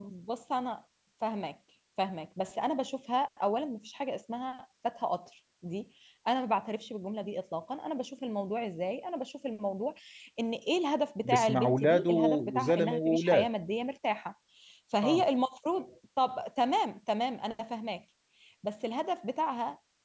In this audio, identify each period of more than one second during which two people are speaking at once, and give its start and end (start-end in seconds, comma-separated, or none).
11.2-13.5